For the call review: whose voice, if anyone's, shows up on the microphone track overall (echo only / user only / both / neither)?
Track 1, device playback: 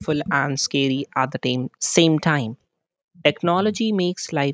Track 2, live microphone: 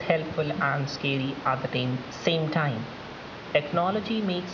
echo only